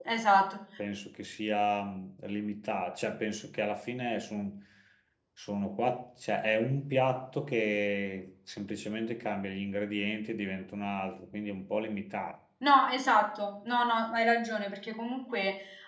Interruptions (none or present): none